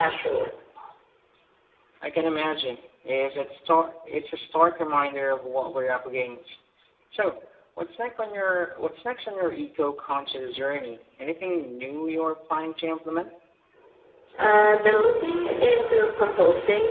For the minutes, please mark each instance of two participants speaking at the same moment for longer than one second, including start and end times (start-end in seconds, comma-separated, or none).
none